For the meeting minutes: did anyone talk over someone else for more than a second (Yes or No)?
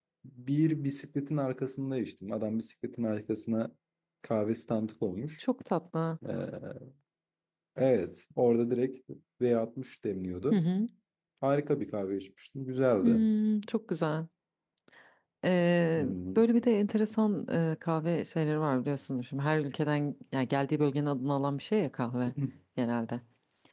No